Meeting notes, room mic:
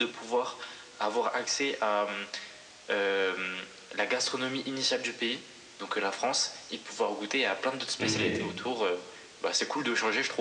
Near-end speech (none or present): present